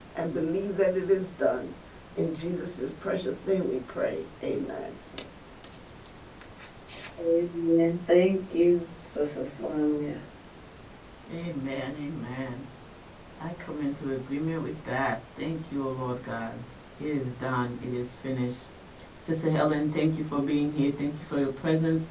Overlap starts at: none

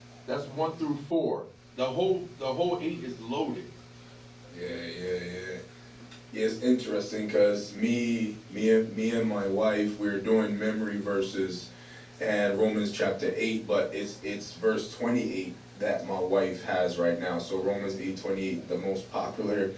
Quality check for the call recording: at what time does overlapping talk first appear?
none

